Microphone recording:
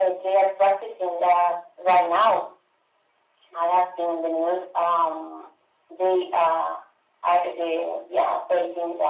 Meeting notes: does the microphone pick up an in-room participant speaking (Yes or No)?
No